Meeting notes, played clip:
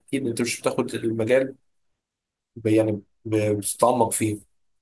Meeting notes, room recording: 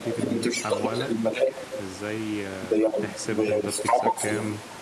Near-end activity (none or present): present